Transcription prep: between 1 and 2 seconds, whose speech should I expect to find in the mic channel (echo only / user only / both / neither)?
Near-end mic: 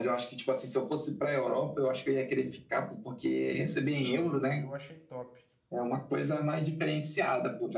echo only